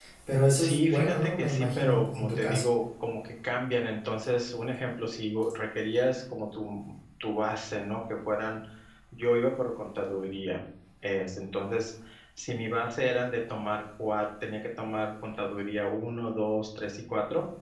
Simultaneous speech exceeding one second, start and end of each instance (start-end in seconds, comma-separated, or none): 0.6-2.6